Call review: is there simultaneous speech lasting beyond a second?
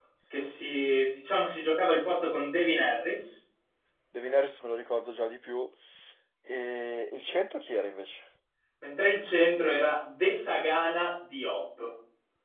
No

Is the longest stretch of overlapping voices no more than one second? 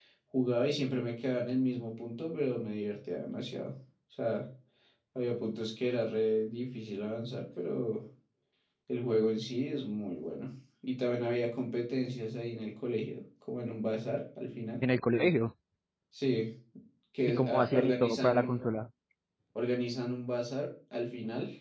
No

